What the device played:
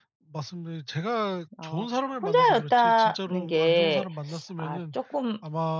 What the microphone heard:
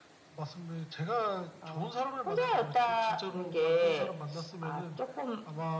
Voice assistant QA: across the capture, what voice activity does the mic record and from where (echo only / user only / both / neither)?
echo only